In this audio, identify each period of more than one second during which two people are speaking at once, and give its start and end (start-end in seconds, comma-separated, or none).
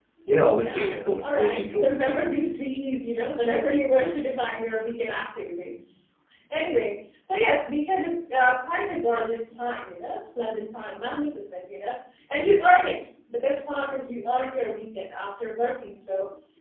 0.6-2.2